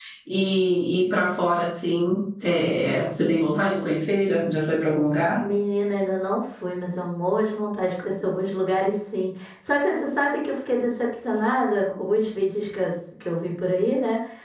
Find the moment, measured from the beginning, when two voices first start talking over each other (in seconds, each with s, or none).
none